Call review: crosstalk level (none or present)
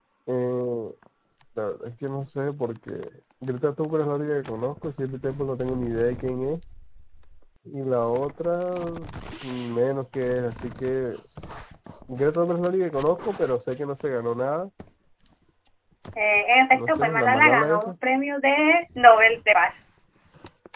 present